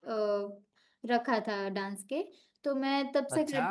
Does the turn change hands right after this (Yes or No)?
No